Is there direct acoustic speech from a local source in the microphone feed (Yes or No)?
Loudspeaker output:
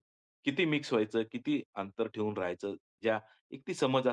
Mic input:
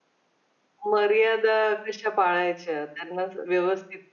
Yes